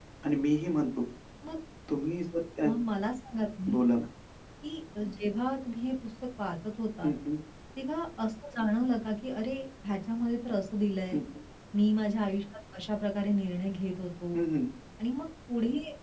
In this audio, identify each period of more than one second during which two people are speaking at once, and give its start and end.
none

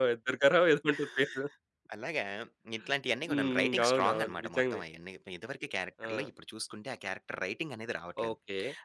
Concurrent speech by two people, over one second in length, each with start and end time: 3.3-4.8

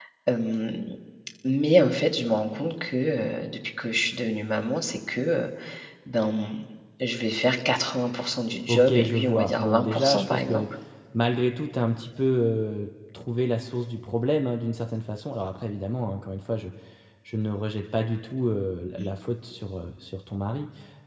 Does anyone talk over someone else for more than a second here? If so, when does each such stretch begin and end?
8.7-10.7

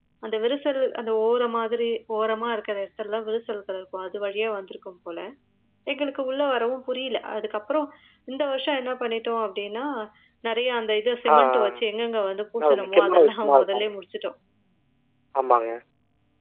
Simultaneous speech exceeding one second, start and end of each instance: 12.6-13.9

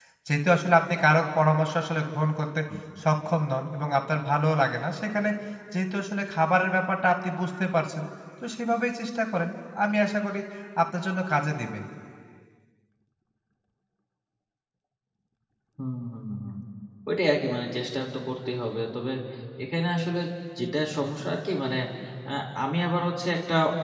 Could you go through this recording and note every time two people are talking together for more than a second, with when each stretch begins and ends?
none

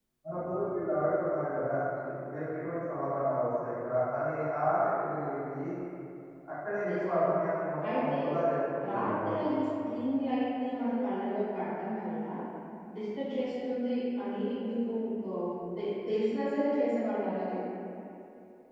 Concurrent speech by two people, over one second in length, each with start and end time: none

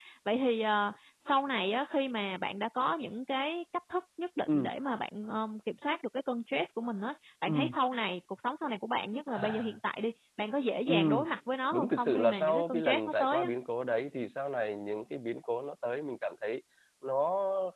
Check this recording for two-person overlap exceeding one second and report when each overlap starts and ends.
11.7-13.5

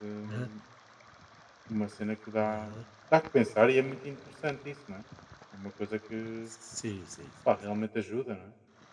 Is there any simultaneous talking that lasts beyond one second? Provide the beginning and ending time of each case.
none

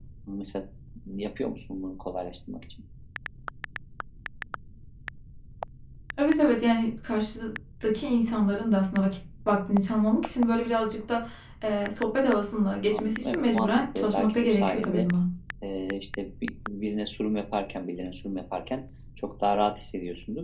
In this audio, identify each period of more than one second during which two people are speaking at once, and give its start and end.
12.9-15.1

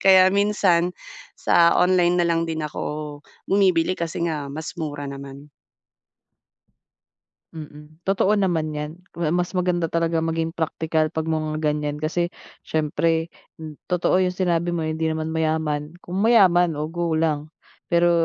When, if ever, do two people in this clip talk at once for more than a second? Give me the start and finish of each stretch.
none

